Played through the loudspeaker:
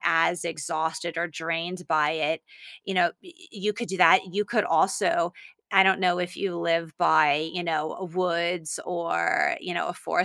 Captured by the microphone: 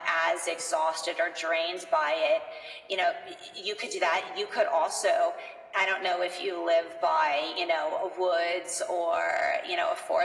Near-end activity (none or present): none